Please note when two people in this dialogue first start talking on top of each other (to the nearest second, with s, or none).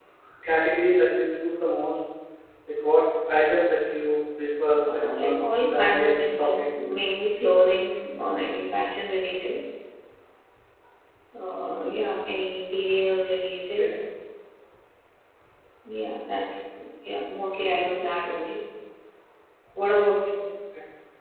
5 s